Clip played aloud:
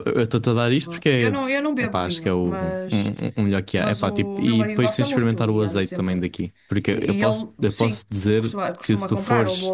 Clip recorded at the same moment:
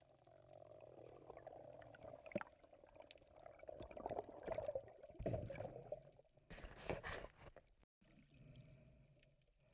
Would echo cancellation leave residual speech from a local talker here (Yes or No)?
No